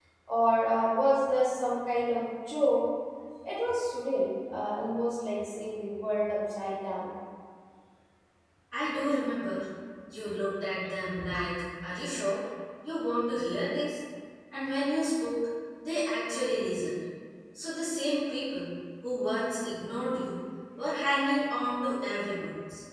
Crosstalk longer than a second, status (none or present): none